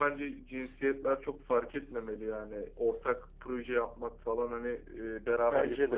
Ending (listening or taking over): listening